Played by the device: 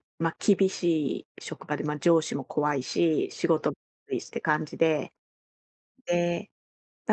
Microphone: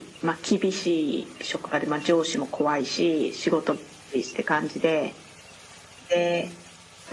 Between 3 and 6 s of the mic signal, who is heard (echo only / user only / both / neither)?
echo only